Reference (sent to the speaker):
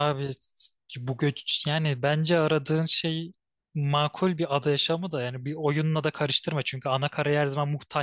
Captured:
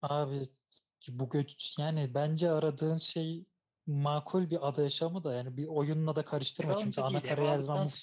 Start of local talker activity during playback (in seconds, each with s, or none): 6.6 s